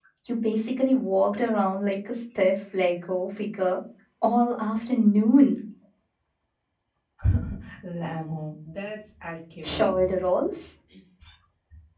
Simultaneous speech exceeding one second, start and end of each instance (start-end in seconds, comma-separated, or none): none